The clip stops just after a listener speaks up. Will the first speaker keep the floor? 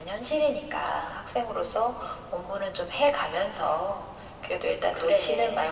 Yes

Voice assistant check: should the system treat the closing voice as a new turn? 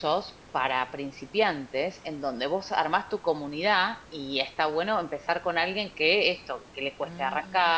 No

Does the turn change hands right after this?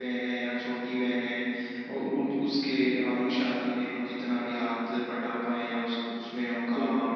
Yes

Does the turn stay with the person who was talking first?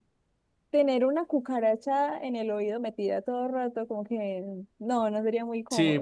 No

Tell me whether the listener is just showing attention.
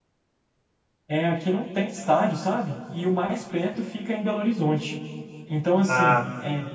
Yes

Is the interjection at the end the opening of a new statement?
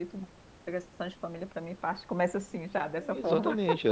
Yes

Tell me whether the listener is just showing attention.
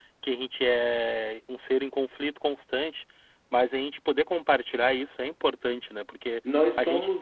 No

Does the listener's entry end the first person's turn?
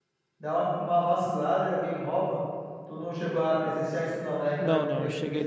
Yes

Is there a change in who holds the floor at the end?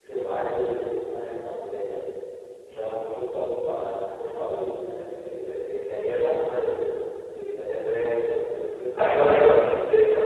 Yes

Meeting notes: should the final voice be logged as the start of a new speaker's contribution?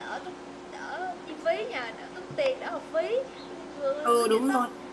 Yes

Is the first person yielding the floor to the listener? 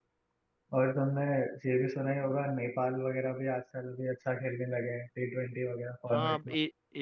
Yes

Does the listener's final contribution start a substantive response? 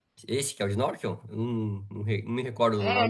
Yes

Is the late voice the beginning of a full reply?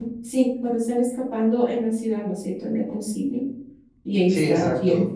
Yes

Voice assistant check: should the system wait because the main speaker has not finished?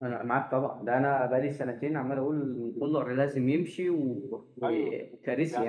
No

